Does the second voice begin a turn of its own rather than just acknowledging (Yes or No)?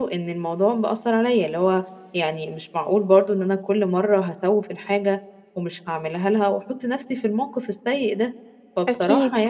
No